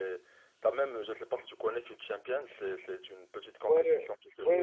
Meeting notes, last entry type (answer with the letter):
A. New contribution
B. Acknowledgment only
A